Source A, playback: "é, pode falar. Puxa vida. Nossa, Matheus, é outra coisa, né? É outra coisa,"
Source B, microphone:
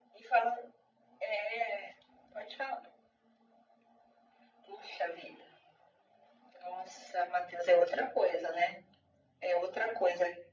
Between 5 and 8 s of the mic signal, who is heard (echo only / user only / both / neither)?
echo only